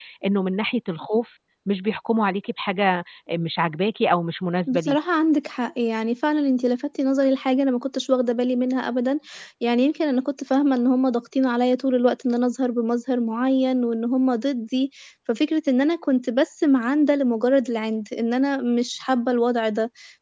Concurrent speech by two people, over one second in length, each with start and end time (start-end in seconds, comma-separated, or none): none